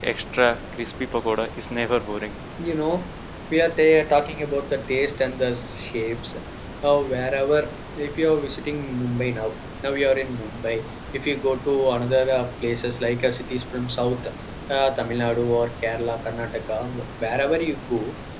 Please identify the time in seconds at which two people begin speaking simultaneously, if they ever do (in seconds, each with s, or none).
none